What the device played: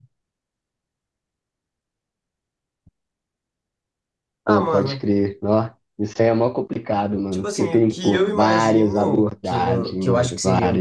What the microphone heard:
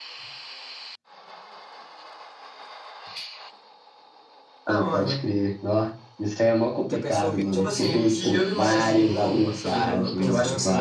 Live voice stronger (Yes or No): No